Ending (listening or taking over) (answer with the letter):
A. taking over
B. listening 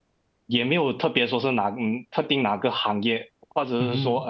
B